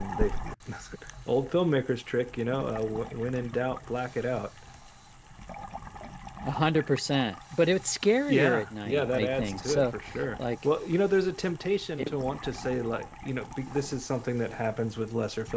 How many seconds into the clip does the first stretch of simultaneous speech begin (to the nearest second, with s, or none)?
8 s